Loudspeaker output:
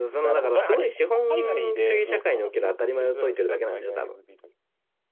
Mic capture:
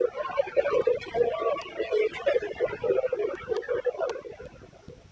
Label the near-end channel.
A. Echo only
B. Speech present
A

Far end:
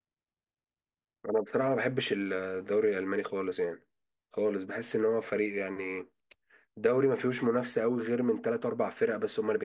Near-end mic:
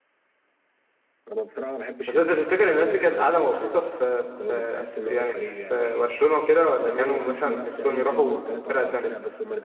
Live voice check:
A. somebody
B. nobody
A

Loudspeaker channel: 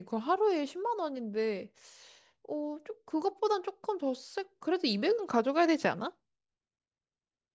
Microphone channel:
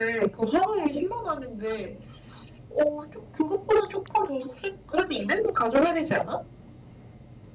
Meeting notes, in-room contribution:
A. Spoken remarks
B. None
B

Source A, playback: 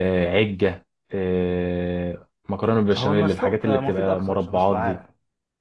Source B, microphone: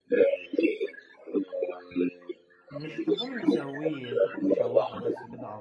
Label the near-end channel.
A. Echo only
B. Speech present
B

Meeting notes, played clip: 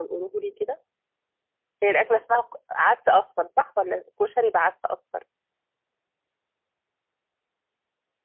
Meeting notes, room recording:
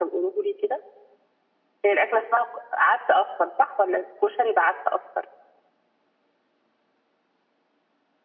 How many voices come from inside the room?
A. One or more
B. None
B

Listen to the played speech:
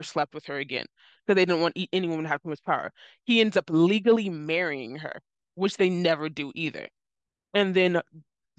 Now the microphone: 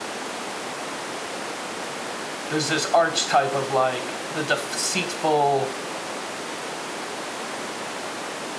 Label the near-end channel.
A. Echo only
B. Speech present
B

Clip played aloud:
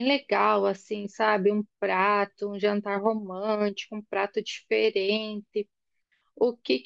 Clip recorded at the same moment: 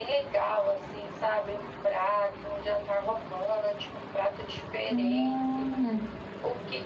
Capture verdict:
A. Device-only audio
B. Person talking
B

